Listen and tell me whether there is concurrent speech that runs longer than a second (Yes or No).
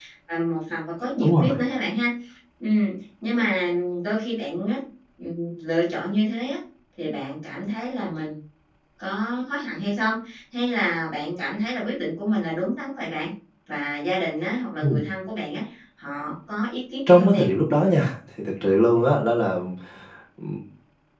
No